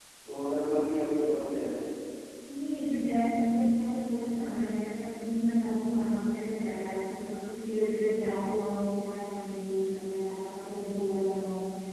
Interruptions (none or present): none